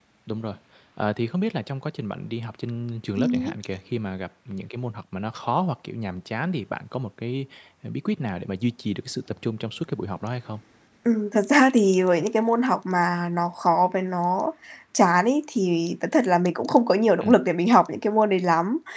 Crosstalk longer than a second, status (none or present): none